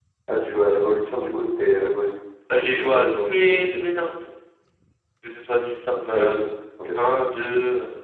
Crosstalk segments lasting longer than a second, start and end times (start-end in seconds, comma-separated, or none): 2.6-3.8